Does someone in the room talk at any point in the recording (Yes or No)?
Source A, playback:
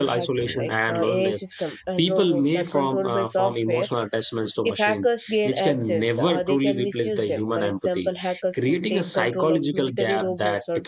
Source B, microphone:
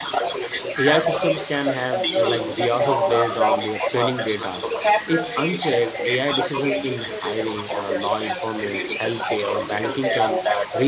Yes